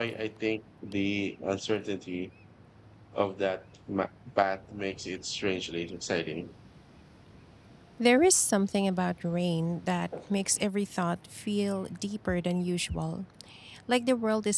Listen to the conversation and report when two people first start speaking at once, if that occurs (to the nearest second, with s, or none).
none